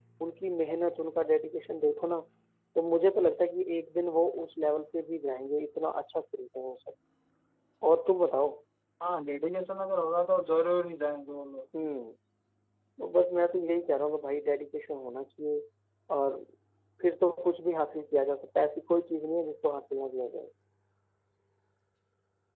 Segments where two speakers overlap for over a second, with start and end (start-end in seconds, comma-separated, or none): none